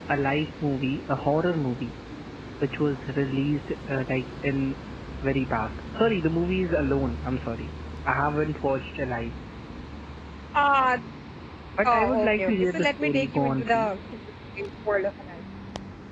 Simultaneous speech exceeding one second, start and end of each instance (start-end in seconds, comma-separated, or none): 11.8-13.9